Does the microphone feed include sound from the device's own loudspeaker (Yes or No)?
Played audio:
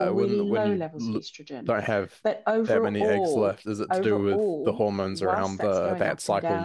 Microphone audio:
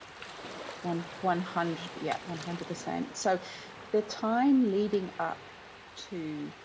No